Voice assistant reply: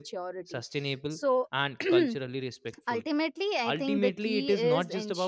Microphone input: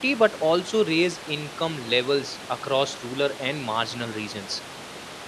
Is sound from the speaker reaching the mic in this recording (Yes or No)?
No